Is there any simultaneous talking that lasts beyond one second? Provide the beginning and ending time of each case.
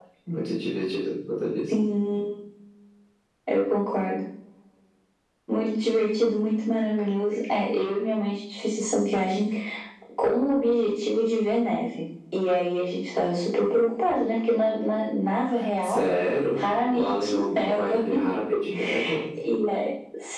16.6-18.0

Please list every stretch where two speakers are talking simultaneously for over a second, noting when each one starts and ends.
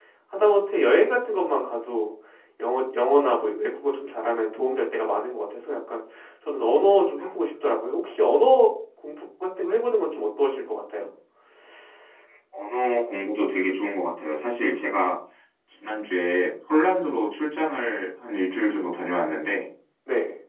none

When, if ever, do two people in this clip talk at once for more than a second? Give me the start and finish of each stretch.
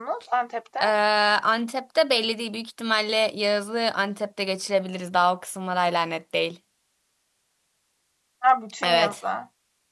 none

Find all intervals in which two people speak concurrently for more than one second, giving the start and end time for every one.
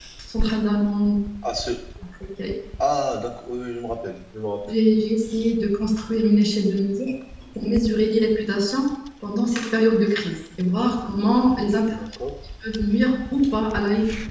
none

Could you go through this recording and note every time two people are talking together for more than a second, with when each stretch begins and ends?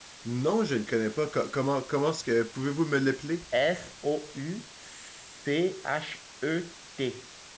none

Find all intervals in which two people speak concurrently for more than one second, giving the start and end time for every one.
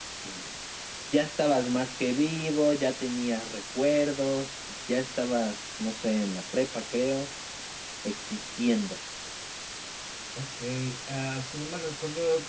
none

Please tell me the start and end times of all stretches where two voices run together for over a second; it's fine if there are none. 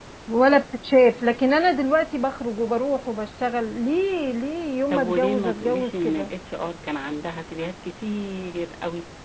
4.9-6.3

